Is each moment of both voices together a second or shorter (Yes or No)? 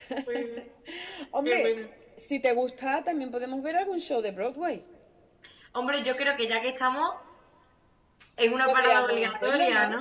No